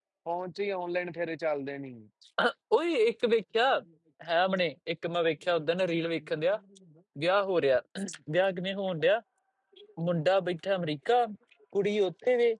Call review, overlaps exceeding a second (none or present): none